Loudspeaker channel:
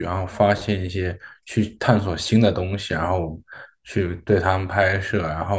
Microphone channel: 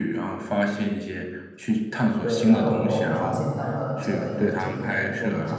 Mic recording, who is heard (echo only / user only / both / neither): both